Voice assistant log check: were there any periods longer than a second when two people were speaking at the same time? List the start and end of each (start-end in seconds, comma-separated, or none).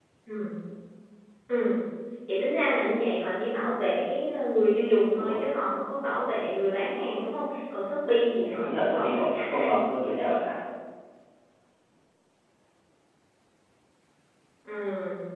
8.3-10.4